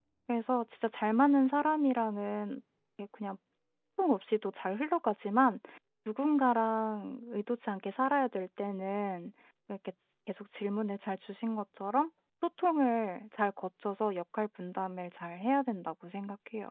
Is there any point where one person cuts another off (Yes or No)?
No